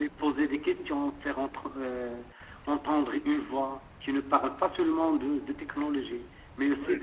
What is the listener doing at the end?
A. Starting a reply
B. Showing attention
B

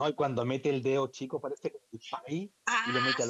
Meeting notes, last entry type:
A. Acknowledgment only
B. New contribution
A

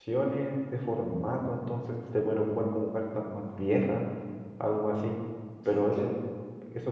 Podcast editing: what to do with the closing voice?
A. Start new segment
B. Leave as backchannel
B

